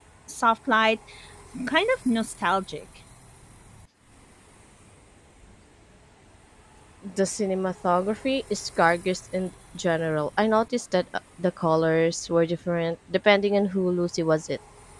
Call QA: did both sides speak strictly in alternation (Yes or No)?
Yes